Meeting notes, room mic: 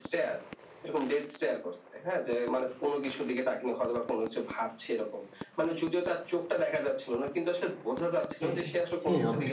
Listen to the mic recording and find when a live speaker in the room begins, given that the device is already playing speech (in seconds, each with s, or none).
8.4 s